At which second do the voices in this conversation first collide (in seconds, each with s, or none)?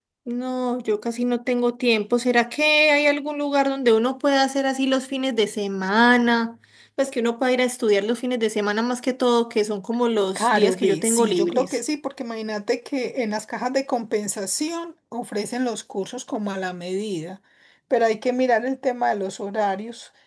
10.4 s